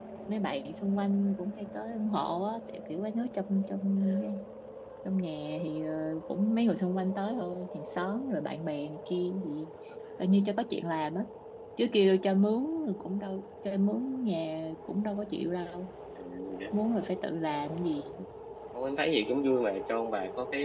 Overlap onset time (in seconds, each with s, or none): none